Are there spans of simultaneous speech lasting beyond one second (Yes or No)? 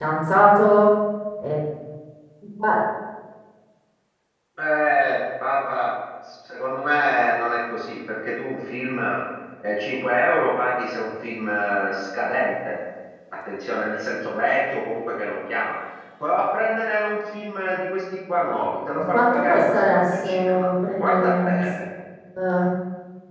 Yes